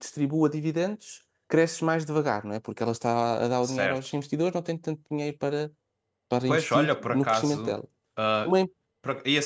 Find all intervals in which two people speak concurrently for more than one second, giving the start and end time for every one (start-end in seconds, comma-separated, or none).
6.5-7.7